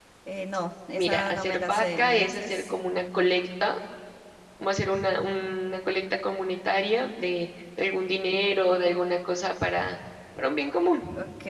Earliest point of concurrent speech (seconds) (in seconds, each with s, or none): 1.0 s